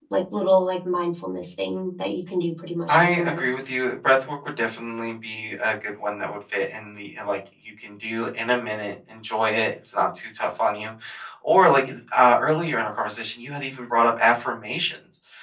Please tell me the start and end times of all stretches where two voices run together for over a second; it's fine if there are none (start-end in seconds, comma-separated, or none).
none